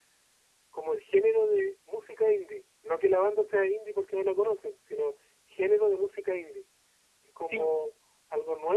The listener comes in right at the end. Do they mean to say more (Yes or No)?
No